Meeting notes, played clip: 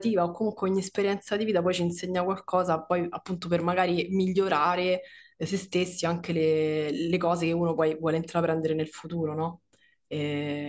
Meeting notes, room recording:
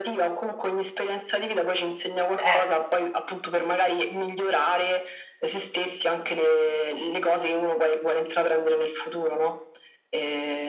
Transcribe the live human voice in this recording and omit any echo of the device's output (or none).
certo,